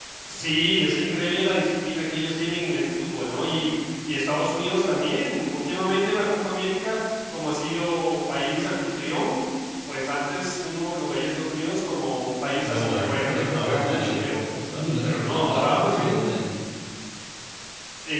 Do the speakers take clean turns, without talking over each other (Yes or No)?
No